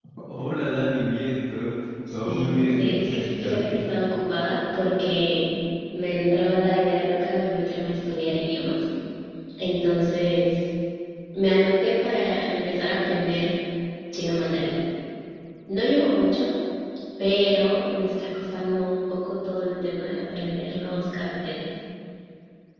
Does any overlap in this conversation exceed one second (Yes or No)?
Yes